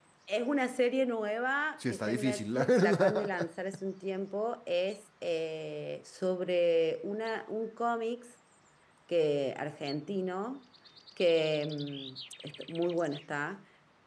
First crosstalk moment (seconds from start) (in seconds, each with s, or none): 1.8 s